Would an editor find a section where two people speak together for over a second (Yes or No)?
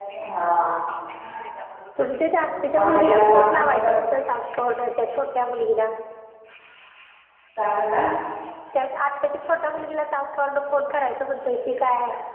Yes